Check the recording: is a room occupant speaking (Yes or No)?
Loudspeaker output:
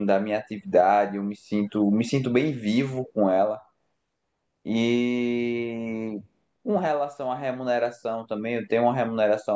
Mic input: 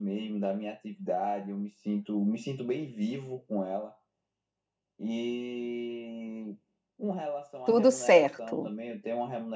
Yes